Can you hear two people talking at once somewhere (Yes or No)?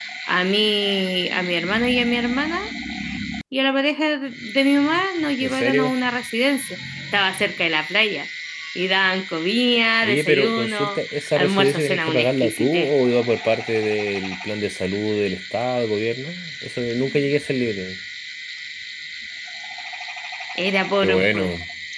Yes